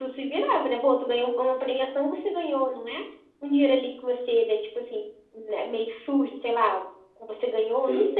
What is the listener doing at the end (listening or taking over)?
listening